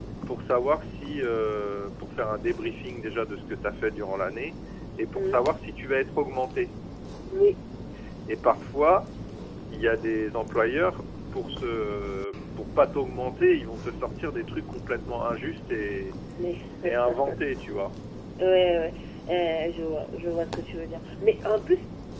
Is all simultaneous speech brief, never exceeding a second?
Yes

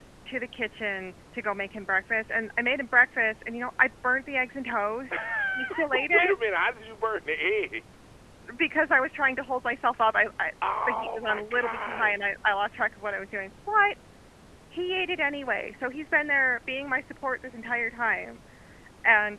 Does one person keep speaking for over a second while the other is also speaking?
Yes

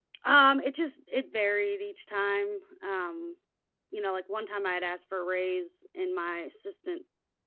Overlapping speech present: No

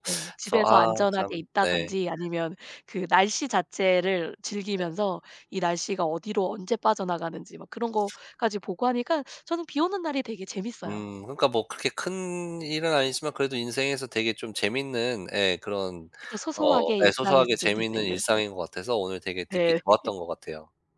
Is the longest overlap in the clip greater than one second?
Yes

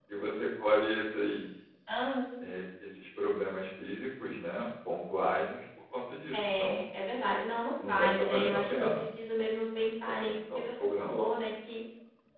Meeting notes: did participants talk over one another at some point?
Yes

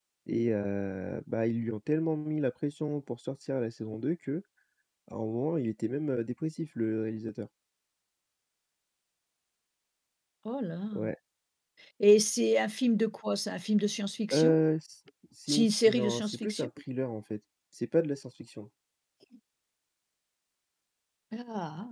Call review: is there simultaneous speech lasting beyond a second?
Yes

